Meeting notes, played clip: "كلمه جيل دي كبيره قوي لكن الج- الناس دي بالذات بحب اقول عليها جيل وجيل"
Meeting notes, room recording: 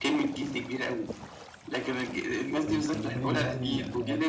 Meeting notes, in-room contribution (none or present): present